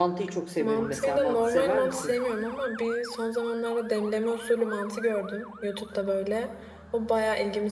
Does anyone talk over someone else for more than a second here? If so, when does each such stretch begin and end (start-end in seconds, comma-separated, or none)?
0.6-2.1